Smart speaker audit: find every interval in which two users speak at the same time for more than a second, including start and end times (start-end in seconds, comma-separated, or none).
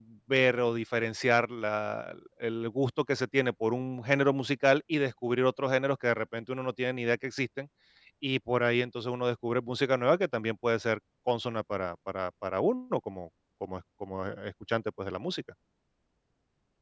none